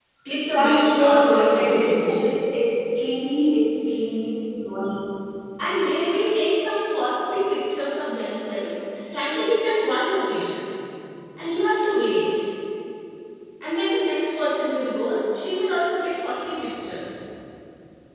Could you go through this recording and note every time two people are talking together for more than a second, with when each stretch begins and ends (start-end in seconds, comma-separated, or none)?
0.6-2.4